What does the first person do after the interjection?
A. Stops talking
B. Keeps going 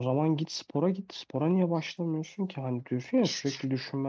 B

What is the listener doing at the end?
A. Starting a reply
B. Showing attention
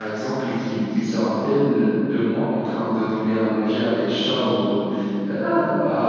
B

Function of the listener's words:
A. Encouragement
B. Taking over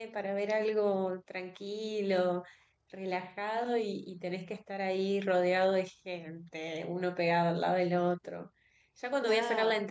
A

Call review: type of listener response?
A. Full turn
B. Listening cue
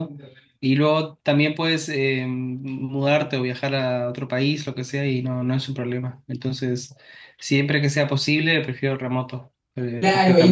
A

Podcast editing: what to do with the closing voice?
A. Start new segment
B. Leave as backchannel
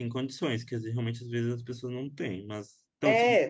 A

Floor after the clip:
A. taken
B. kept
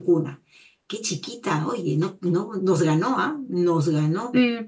A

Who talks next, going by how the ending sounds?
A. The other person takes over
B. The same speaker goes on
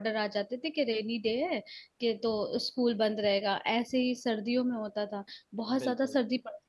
B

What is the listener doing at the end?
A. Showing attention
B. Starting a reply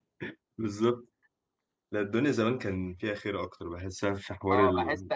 B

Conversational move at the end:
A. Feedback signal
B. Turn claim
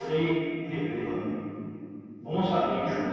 A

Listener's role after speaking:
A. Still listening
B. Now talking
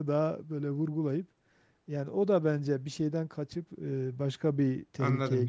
B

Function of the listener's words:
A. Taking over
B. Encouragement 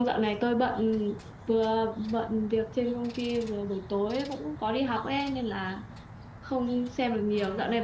B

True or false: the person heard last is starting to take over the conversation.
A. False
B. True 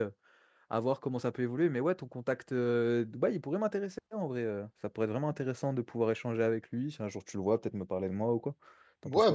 B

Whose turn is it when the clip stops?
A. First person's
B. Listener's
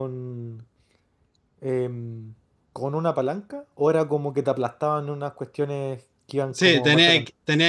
B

